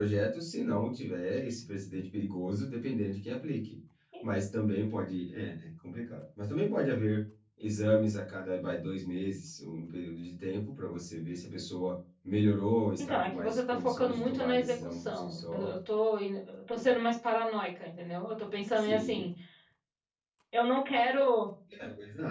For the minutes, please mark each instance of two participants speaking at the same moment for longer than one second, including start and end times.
13.0-15.7

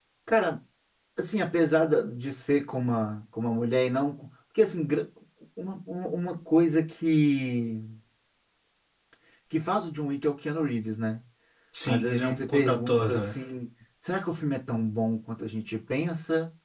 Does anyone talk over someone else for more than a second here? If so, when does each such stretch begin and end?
11.9-13.3

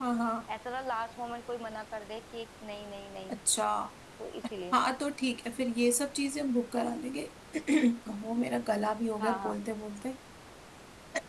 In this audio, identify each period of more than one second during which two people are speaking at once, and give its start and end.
none

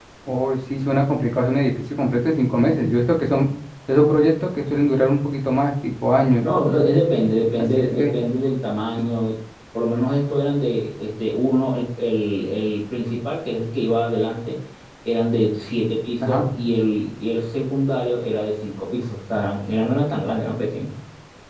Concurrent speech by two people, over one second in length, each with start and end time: none

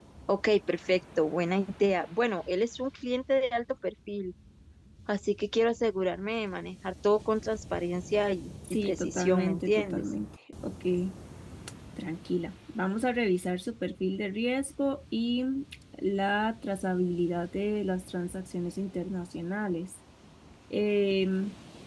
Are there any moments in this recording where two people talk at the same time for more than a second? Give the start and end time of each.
8.8-10.0

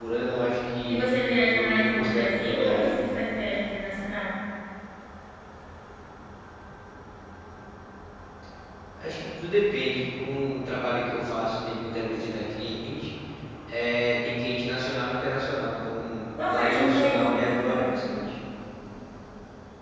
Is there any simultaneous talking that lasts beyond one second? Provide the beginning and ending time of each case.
1.5-2.9, 16.5-18.0

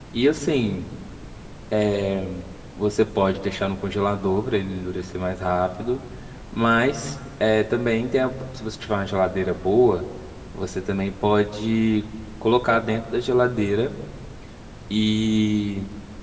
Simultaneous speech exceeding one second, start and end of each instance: none

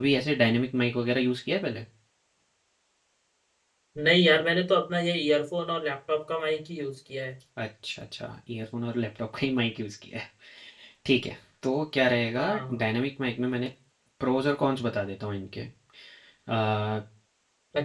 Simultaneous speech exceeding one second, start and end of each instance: none

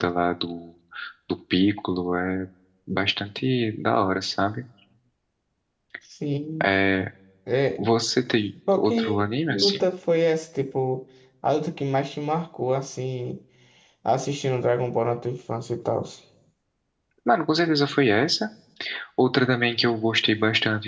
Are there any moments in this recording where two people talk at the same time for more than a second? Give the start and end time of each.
8.7-9.9

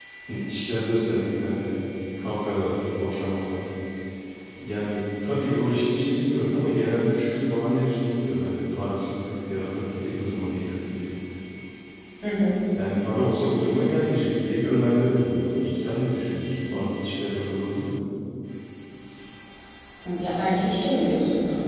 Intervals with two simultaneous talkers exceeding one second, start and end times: none

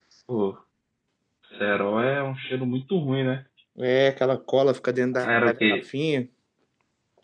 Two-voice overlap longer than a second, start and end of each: none

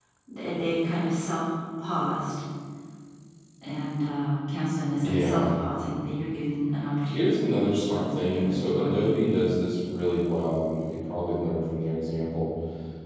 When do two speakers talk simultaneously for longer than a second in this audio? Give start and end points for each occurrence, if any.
7.5-9.1

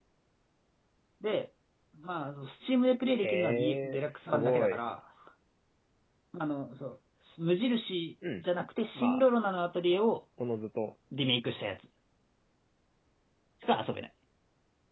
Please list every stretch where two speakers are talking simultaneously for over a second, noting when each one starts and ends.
3.1-4.8

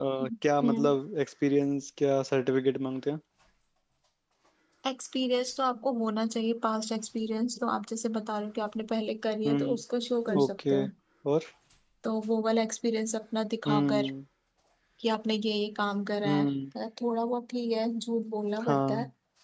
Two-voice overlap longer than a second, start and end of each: none

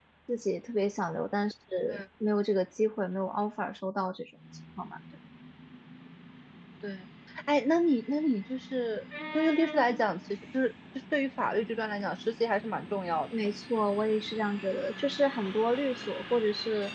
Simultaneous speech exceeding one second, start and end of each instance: none

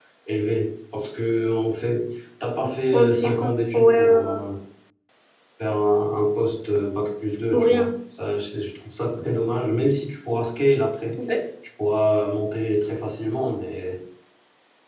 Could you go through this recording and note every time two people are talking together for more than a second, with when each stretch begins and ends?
2.9-4.4

